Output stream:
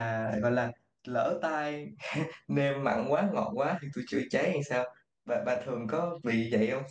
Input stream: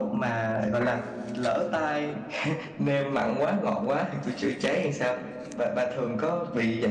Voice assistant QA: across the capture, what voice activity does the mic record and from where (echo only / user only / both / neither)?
echo only